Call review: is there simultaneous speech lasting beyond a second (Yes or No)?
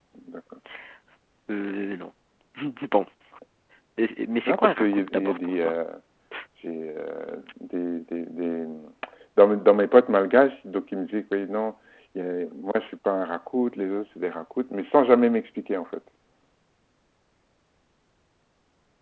Yes